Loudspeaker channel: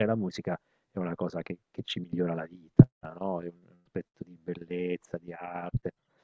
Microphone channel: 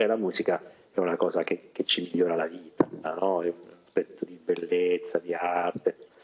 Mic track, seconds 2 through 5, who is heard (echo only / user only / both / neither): echo only